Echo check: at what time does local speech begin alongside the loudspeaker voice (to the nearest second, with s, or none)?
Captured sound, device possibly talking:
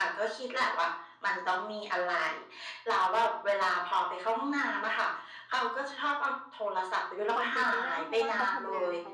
7 s